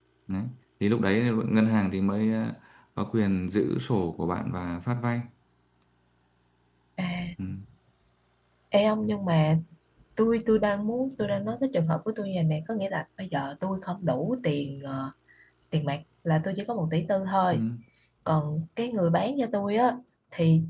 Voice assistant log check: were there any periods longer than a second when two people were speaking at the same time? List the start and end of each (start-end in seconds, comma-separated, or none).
none